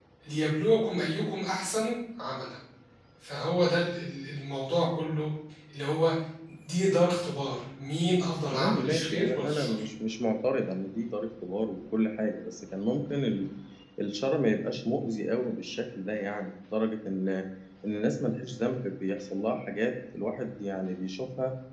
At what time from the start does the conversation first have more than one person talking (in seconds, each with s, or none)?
8.5 s